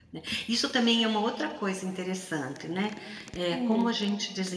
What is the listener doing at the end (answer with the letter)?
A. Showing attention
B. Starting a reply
A